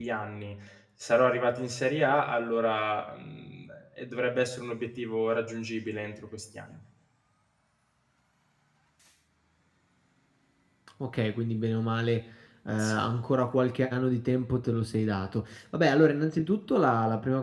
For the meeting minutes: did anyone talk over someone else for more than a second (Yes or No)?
No